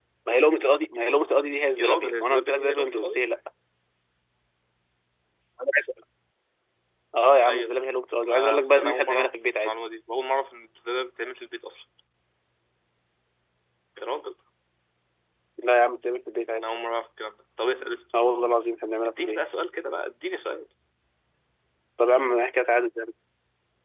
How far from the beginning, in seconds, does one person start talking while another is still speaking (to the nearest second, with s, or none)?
2 s